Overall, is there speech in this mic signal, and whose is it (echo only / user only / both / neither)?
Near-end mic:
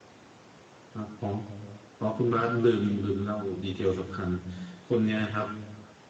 user only